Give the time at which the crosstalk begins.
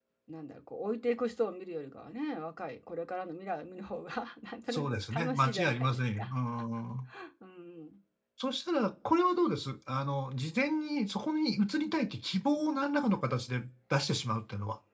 4.7 s

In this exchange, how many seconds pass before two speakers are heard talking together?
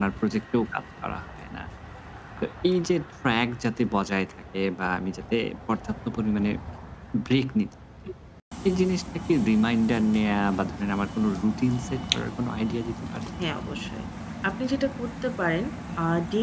none

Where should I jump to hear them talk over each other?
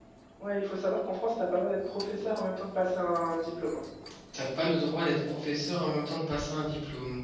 none

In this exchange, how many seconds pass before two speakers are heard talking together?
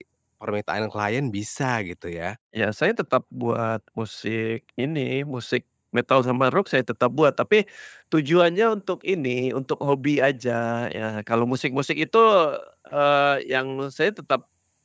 none

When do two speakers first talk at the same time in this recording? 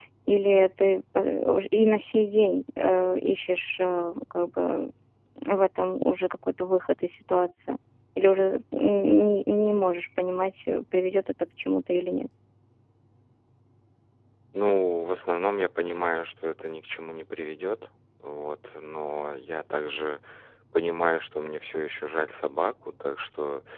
none

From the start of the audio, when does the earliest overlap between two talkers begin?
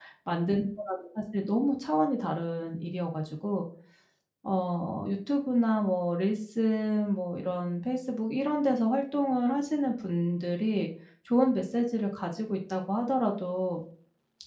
none

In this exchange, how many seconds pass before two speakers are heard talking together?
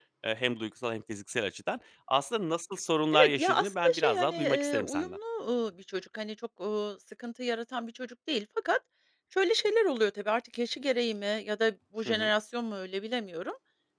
3.1 s

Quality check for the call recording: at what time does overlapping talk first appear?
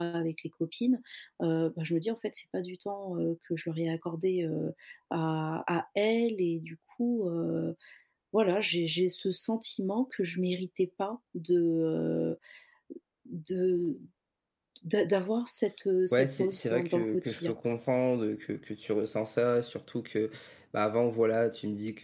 16.1 s

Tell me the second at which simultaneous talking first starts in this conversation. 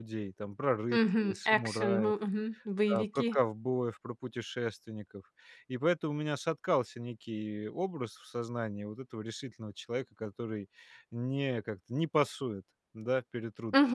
0.9 s

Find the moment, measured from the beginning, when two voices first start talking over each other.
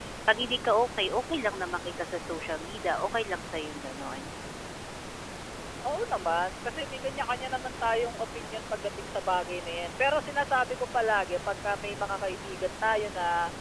none

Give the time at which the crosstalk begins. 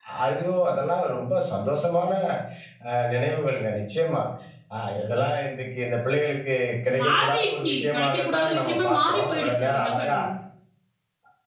6.9 s

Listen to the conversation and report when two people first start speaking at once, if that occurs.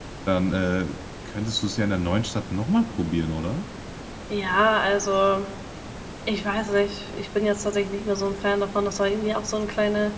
none

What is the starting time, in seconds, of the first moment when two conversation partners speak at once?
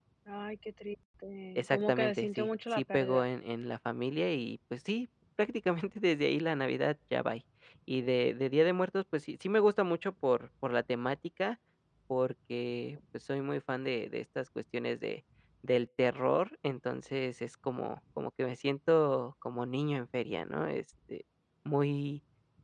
1.6 s

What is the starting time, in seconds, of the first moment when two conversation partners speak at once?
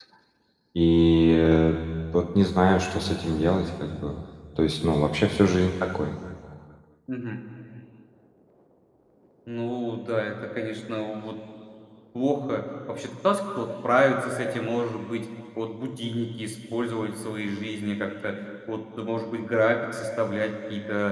none

